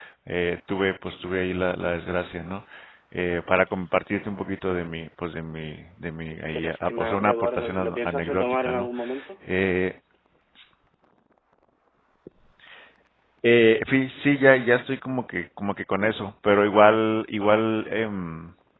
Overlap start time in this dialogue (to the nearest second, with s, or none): 6 s